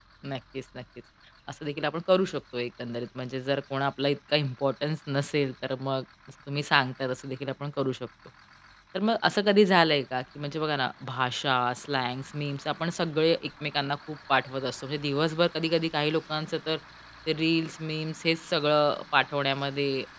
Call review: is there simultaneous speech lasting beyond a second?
No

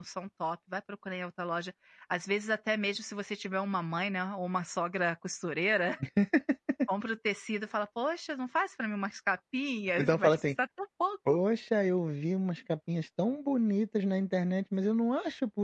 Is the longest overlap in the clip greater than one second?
No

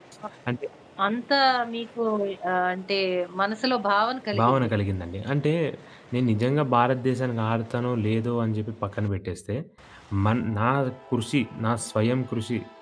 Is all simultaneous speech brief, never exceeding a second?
Yes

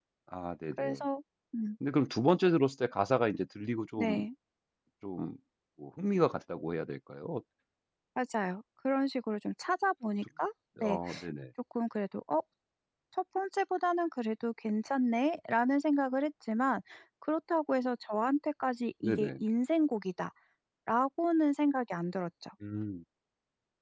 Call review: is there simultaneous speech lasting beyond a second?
No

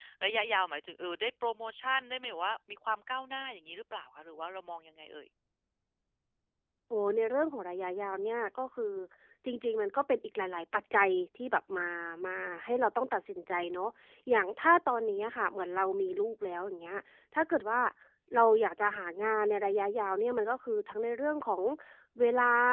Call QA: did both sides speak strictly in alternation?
Yes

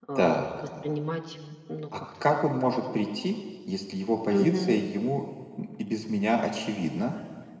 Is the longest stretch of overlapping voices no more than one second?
Yes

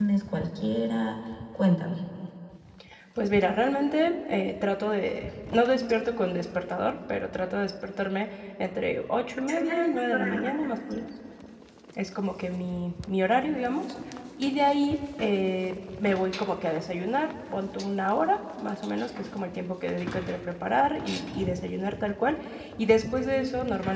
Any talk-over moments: Yes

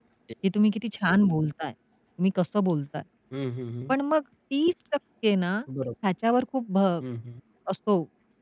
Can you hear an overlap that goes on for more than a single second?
No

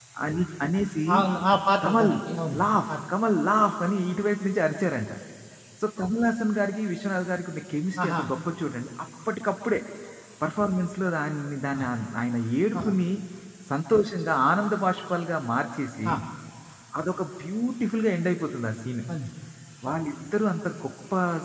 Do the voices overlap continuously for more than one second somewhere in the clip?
No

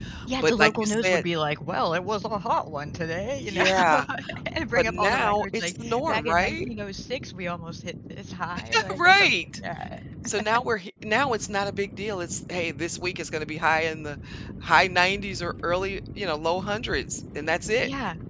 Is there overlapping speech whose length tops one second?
Yes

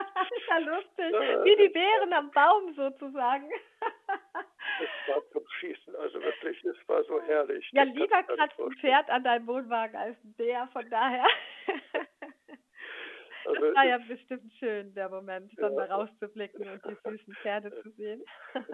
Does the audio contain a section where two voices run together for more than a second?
Yes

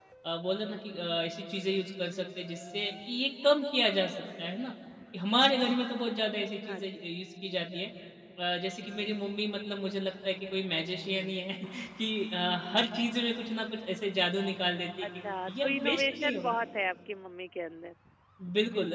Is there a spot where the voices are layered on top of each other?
Yes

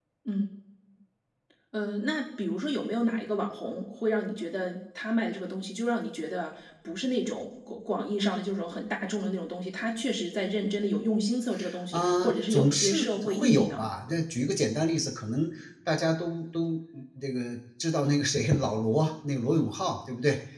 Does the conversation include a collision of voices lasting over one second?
Yes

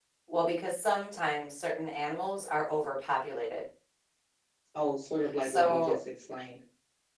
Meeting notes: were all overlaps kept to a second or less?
Yes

